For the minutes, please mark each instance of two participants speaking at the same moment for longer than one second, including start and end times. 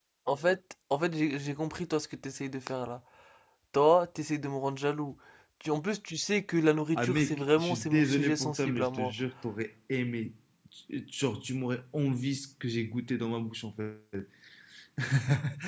7.0-9.1

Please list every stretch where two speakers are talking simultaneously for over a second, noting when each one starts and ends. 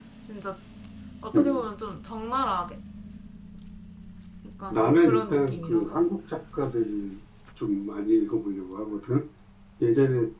4.7-6.0

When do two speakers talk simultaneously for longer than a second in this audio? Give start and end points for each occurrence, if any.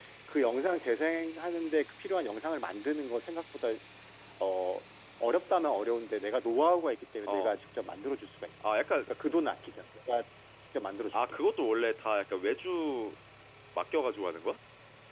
none

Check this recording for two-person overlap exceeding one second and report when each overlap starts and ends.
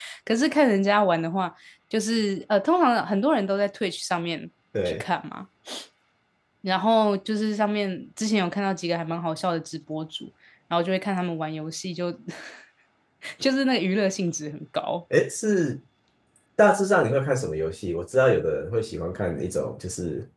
none

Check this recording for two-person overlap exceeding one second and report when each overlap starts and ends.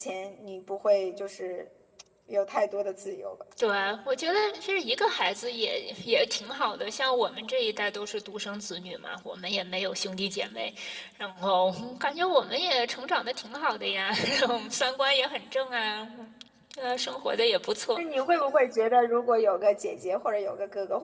none

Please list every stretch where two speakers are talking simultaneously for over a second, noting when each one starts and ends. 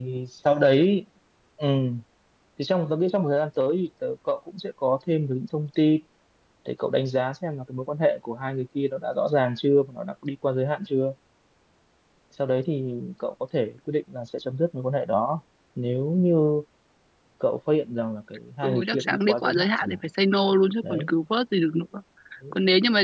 18.6-20.0

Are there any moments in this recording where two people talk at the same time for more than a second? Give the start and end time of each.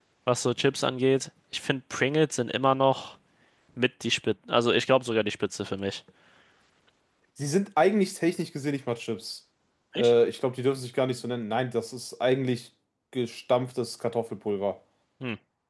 none

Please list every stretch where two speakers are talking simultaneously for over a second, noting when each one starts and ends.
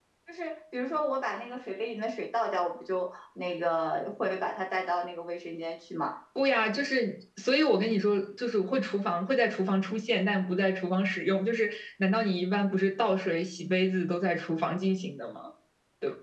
none

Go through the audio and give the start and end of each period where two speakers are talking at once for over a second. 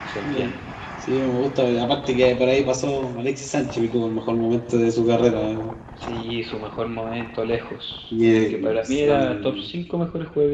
8.1-9.7

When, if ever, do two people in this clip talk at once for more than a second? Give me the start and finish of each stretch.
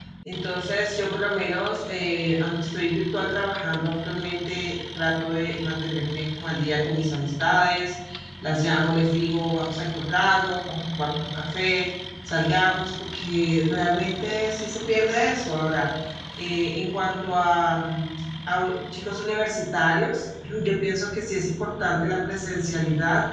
none

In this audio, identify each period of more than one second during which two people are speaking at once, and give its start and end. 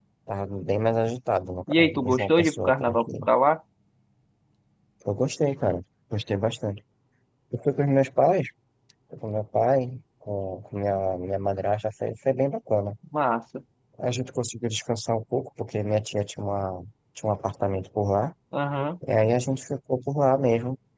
1.7-3.3

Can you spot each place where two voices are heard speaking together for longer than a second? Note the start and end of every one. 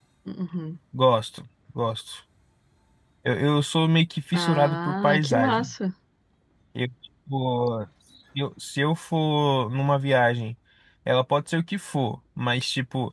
4.3-5.7

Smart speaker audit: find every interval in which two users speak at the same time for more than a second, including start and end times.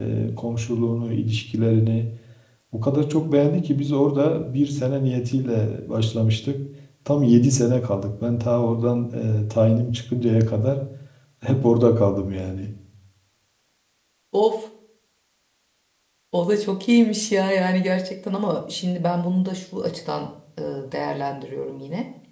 none

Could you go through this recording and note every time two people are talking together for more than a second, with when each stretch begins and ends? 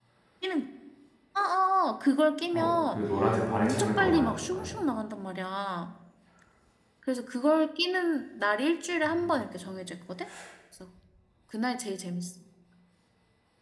3.5-4.7

